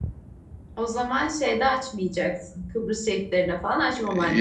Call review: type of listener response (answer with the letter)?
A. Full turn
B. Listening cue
A